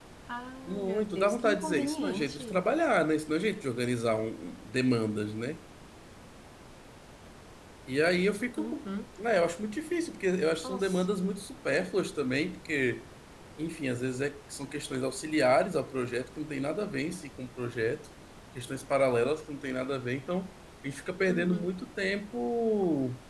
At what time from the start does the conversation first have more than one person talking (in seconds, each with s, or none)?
0.7 s